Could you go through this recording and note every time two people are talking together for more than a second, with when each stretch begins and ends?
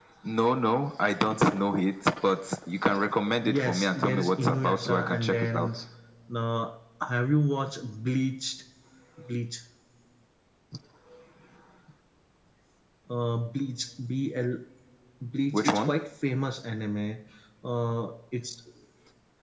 3.4-5.7

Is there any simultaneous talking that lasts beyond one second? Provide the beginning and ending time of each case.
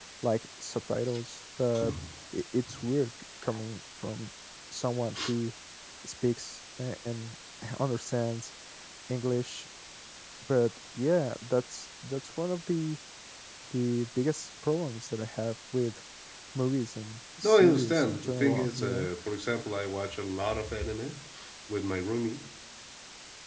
17.4-19.1

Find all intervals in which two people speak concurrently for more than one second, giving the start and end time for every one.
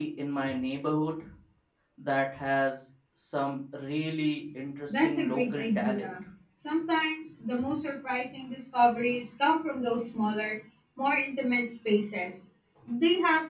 4.9-6.1

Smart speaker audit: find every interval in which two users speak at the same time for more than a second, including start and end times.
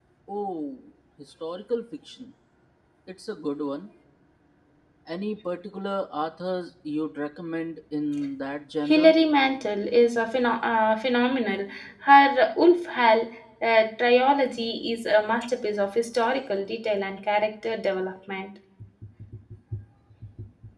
none

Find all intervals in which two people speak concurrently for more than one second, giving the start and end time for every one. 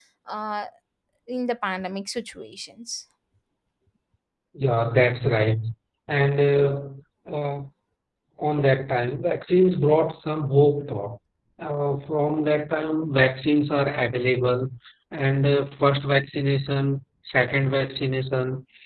none

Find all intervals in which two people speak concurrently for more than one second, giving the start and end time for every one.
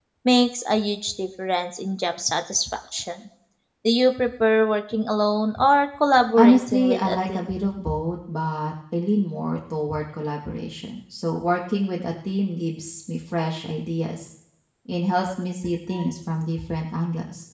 6.4-7.6

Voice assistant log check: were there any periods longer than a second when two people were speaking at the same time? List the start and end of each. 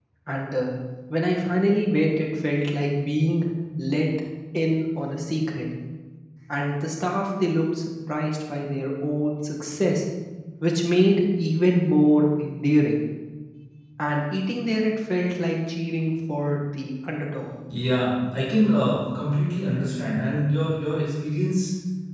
none

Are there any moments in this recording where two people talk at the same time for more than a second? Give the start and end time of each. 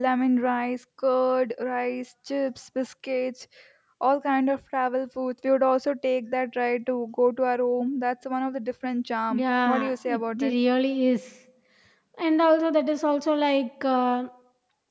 9.3-10.5

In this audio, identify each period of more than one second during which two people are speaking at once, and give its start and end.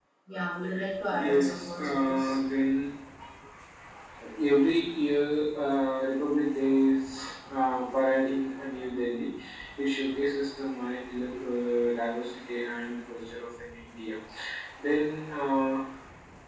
1.1-2.4

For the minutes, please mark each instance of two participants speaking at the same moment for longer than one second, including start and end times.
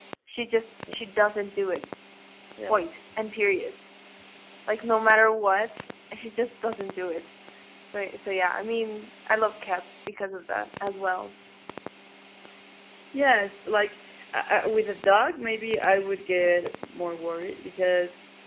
none

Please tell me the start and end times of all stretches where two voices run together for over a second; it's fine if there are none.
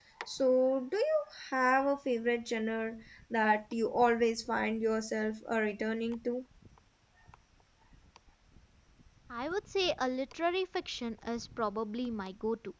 none

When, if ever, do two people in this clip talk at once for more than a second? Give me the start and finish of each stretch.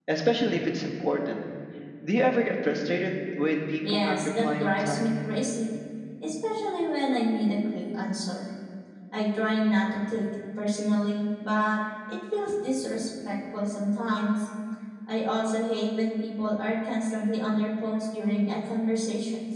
3.9-5.1

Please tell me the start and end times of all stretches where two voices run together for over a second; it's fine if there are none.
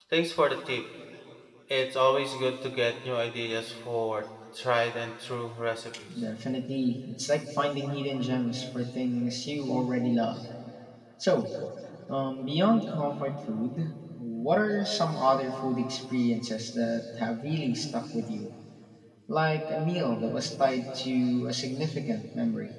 none

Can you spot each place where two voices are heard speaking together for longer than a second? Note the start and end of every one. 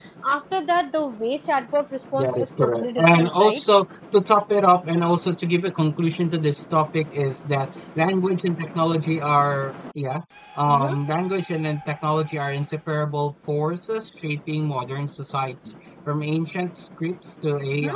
2.1-3.6

